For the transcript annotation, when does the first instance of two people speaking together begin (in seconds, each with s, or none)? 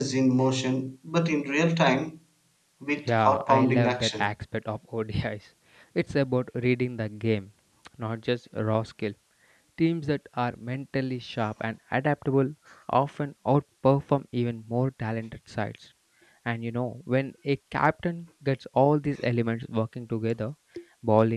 3.0 s